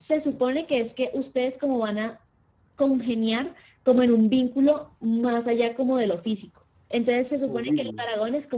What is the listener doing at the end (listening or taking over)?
listening